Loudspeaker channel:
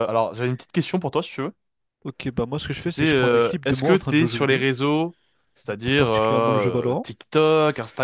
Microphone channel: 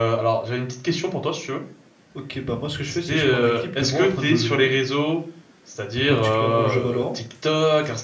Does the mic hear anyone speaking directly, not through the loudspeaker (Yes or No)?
No